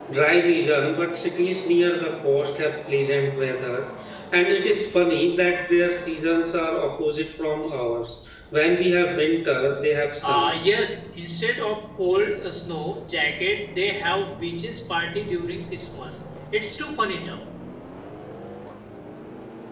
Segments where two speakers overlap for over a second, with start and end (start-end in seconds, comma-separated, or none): none